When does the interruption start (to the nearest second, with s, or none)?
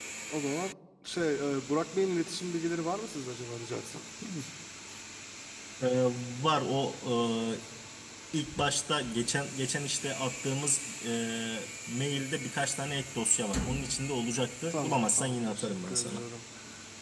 15 s